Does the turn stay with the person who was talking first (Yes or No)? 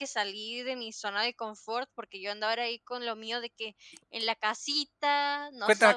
No